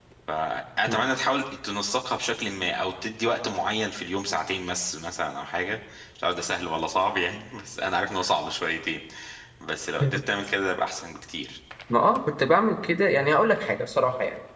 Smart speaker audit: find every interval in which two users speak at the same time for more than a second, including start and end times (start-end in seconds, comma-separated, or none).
none